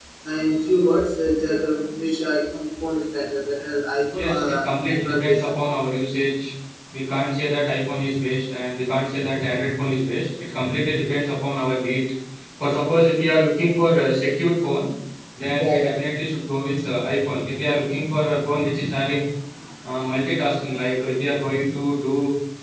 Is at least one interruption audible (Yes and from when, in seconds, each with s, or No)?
Yes, from 4.1 s